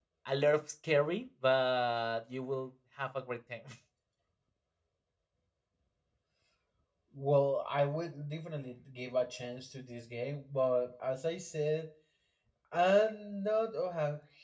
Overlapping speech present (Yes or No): No